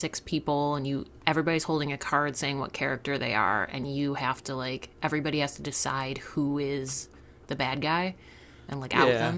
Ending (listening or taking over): taking over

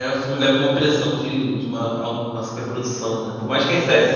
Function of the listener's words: listening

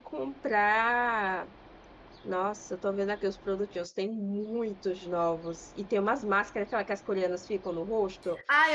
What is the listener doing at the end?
taking over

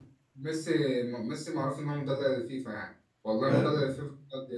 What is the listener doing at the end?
listening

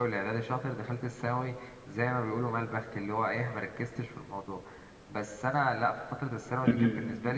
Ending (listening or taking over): listening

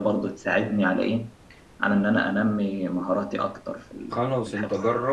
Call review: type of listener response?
taking over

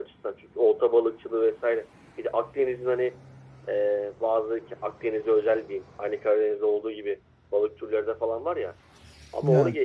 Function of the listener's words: listening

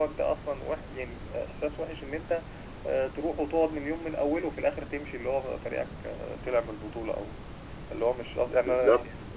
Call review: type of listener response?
taking over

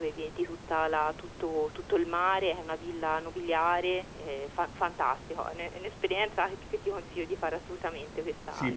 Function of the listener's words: taking over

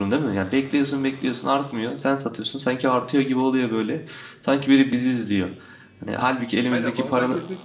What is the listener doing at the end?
taking over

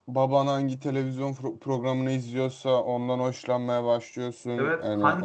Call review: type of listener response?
taking over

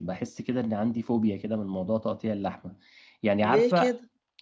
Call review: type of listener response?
listening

